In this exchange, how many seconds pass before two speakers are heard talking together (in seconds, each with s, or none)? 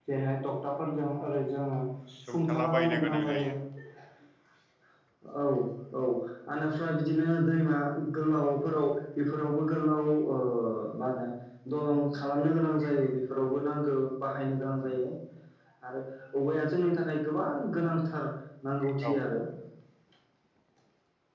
2.3 s